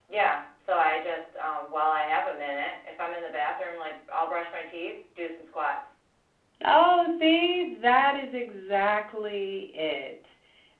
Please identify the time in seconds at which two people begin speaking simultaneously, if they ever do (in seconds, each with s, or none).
none